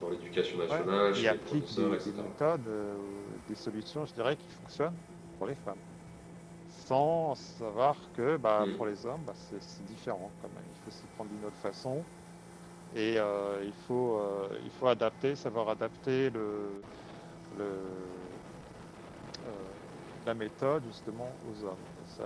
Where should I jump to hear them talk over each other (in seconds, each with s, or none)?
0.7 s